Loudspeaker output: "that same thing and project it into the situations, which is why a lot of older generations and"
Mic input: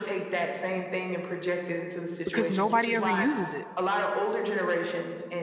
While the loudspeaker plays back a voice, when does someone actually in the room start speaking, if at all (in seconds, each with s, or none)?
2.2 s